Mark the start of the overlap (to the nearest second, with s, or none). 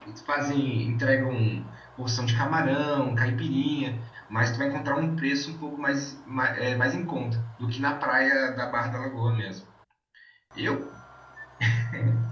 none